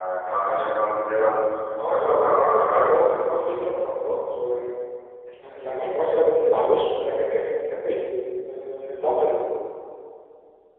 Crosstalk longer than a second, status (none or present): present